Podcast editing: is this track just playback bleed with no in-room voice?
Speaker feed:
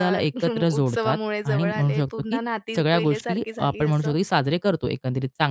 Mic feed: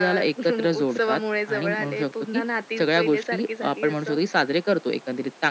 Yes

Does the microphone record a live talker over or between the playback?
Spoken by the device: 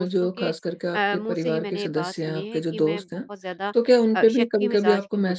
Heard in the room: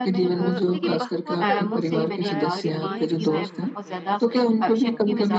Yes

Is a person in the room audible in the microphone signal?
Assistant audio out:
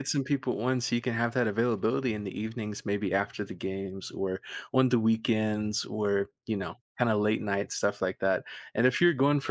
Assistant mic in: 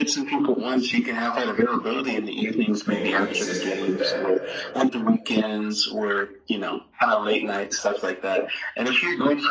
Yes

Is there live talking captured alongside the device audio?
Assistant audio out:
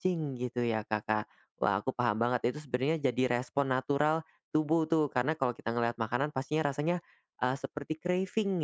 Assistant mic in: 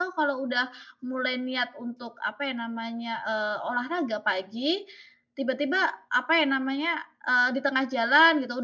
Yes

